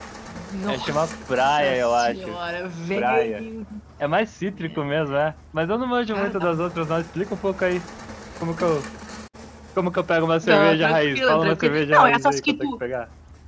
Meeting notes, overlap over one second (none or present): present